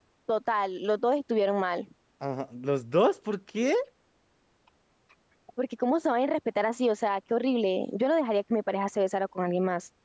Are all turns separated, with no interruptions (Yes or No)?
Yes